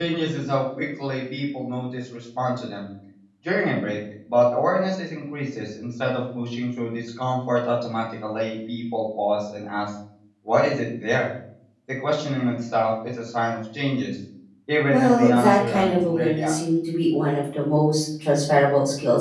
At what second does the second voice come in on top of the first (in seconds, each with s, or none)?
14.9 s